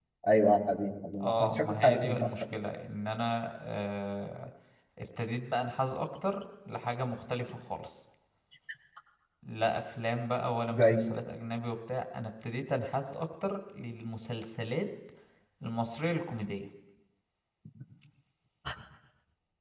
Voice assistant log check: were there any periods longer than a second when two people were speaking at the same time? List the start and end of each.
1.2-2.6

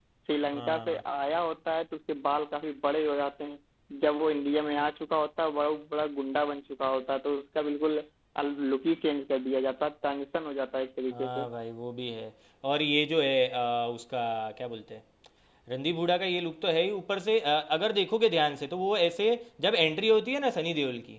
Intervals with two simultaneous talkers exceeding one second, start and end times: none

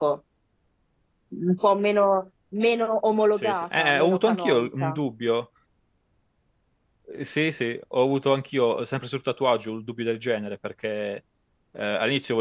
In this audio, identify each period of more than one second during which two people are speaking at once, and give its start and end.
3.4-5.0

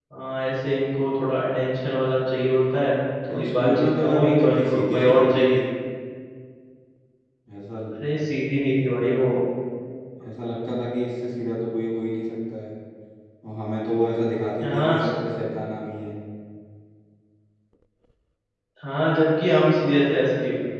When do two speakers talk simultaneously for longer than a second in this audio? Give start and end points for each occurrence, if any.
3.3-5.6

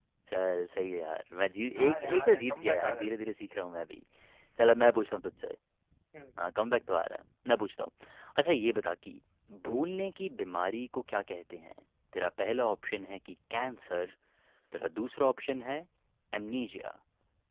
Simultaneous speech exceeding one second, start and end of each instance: 1.8-3.1

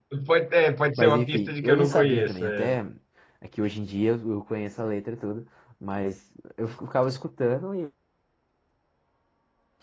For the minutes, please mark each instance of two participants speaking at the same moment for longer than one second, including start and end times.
1.0-2.7

